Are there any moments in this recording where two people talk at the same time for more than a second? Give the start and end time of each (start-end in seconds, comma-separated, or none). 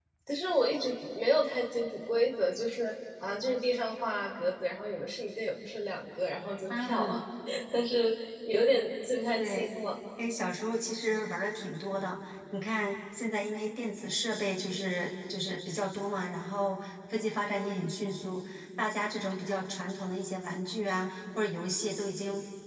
none